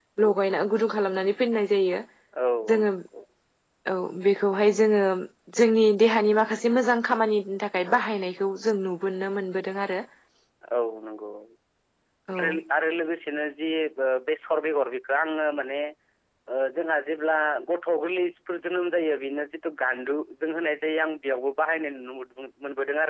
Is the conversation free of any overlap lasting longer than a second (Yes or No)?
Yes